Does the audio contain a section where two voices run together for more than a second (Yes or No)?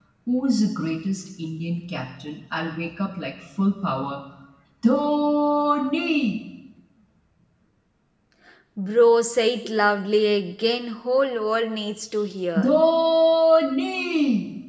No